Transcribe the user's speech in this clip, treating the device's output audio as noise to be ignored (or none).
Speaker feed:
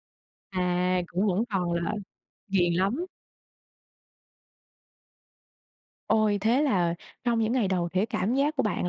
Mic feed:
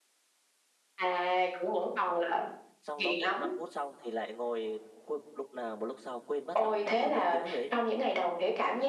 Xong nó vuốt 5 phút xong thì lại ngồi cu lúc nào mà lúc sau quên mất là mình đã ngồi mấy tiếng rồi ấy.